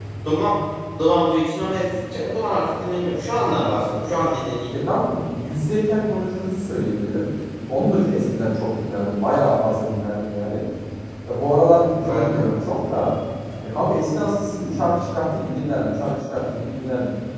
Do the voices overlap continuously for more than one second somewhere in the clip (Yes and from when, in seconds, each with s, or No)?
No